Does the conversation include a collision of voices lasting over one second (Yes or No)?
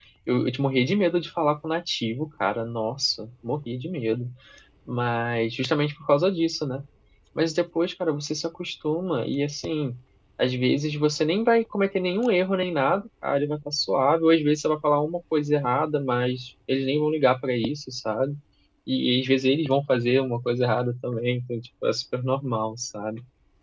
No